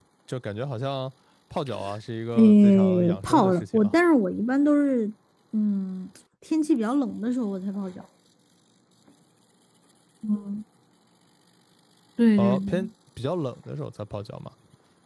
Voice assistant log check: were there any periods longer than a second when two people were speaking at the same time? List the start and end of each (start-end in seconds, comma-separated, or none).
2.4-4.0